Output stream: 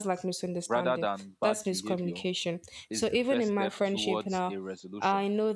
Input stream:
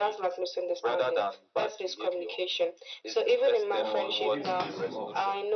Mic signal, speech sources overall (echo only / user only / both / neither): both